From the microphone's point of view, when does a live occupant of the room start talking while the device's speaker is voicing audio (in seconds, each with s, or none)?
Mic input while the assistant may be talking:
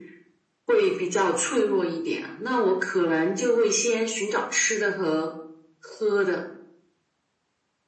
none